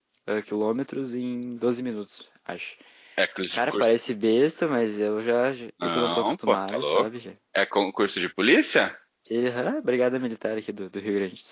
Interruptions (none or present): present